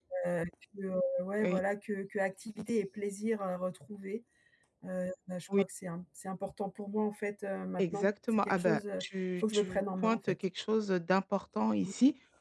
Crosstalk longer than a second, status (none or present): present